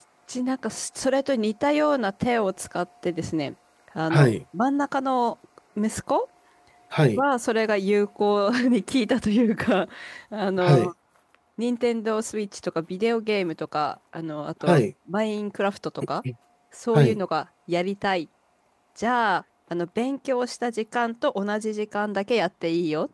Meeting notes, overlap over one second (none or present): none